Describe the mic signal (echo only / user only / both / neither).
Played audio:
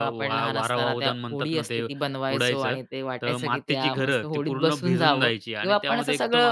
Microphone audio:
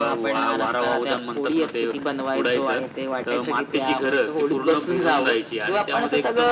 echo only